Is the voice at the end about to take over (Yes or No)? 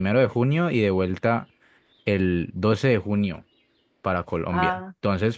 No